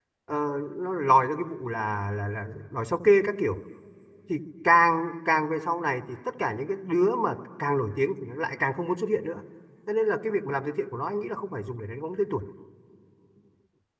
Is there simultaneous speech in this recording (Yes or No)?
No